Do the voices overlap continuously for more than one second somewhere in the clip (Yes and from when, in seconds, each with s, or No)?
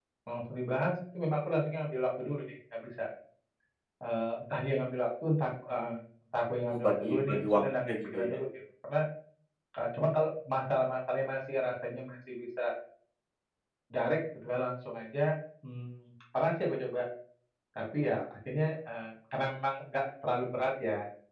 Yes, from 6.7 s